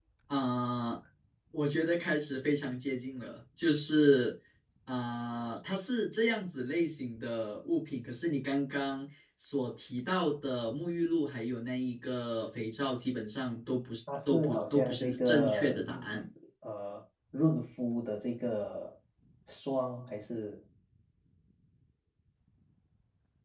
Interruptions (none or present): present